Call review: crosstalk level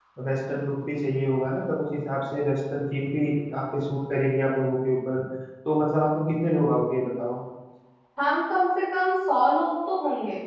none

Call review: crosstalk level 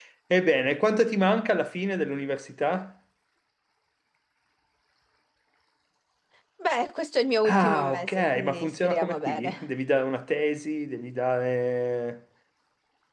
present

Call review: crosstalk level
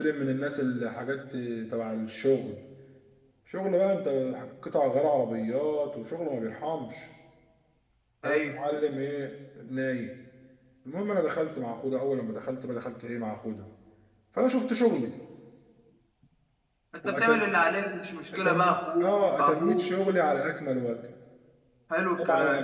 present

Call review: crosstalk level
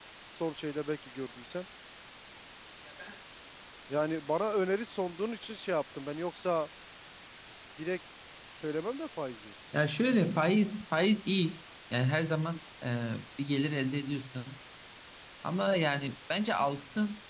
none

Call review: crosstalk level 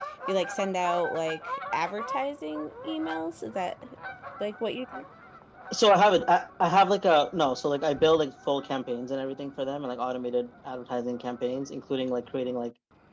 none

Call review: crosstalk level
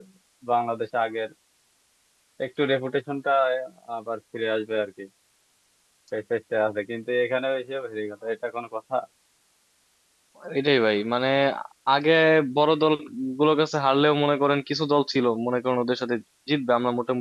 none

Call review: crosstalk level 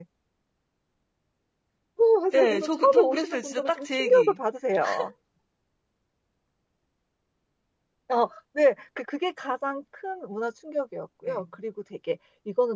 present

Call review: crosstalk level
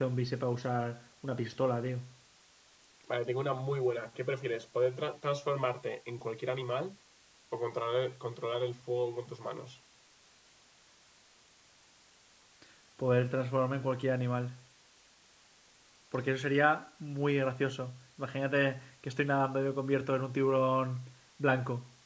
none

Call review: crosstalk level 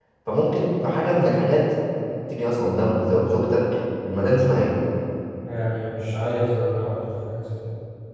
none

